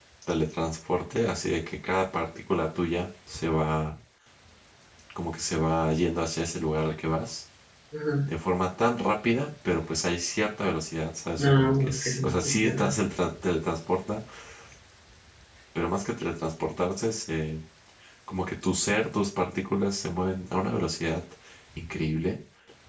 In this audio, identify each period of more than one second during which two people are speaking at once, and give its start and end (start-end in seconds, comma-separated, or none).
11.4-12.9